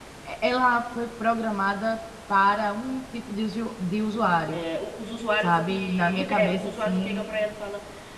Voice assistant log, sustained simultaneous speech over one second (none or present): present